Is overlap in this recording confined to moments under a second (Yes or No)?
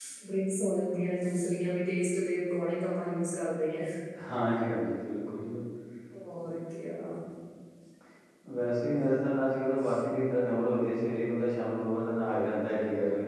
Yes